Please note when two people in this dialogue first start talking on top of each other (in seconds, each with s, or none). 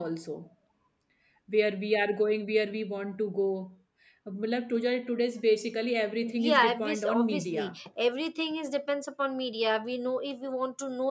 6.2 s